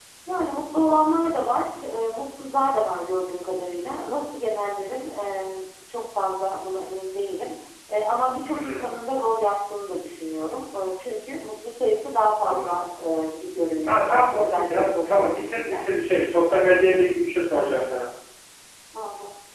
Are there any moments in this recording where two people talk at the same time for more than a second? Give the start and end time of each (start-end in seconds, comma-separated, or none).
13.9-15.8